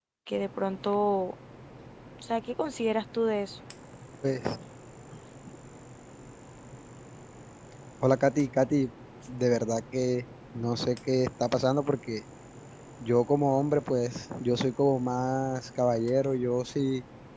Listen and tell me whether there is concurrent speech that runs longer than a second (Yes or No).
No